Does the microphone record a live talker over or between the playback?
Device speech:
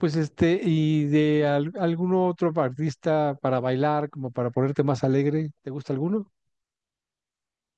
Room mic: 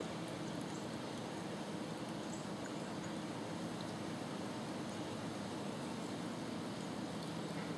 No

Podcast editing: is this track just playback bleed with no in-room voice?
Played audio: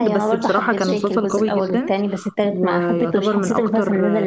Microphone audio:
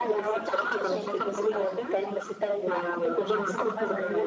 No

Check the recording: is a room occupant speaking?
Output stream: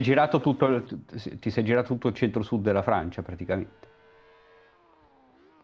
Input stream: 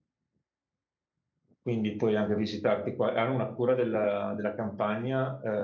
Yes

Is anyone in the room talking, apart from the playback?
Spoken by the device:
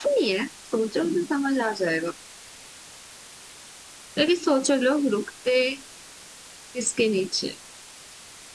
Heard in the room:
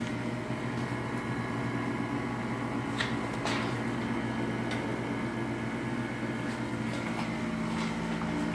No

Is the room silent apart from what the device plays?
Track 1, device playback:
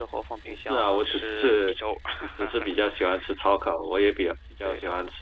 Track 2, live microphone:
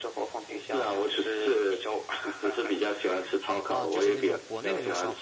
No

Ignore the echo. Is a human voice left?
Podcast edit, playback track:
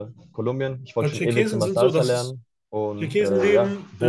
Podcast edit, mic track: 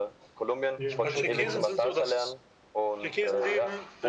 Yes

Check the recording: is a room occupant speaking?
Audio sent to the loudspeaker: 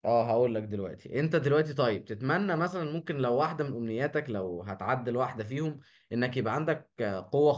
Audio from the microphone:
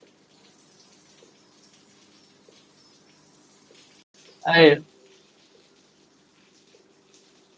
Yes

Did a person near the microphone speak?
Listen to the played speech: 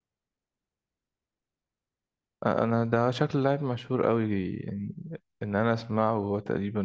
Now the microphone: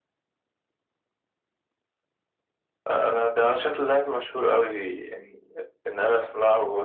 No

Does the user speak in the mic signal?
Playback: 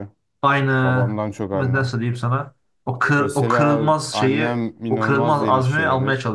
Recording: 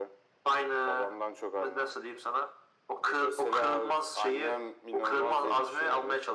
No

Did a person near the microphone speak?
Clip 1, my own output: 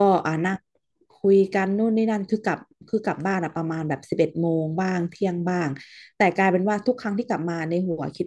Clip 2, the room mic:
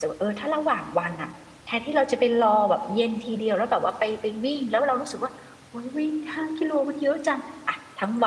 Yes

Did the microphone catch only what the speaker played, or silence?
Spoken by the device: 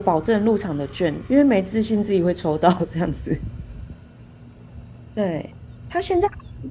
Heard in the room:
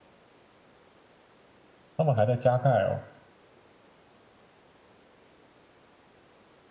No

